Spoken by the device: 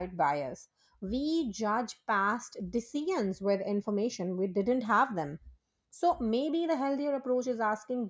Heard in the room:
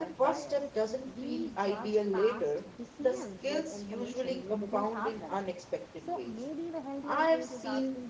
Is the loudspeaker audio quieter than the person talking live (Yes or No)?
Yes